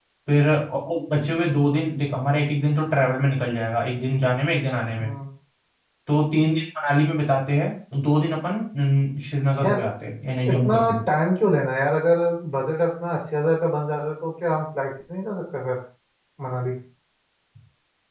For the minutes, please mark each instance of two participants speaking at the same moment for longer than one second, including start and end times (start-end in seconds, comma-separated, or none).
none